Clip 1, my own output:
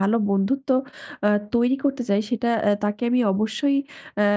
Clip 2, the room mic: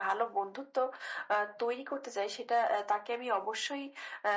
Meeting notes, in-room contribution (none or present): none